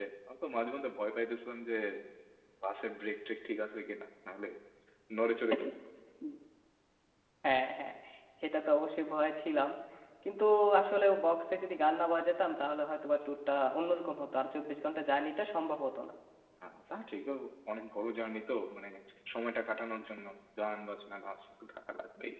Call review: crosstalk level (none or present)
none